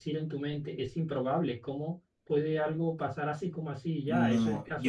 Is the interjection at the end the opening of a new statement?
Yes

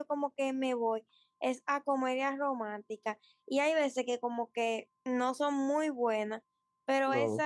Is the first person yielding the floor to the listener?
No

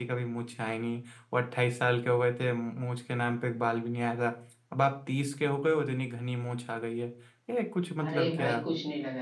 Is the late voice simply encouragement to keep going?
No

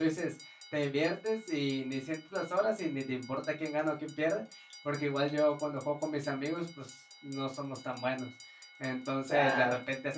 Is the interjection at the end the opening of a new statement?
No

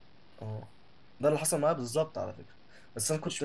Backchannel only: Yes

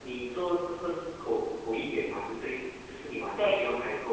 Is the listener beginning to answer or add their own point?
No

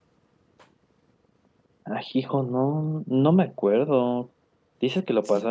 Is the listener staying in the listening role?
Yes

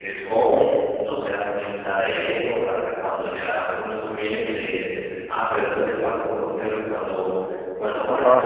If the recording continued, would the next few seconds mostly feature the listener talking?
No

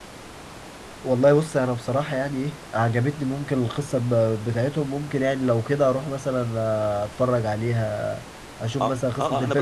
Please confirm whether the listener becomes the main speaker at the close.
Yes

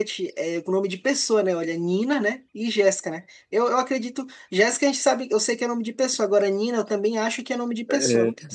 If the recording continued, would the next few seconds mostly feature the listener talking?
Yes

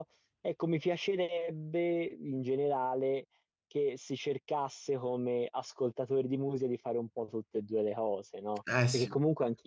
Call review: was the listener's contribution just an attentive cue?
Yes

